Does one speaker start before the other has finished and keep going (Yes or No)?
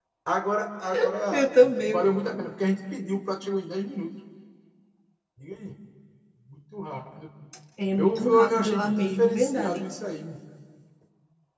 Yes